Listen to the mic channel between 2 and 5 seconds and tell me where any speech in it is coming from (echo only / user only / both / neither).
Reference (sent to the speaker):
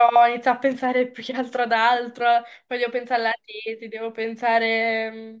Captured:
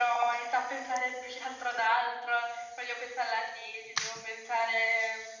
echo only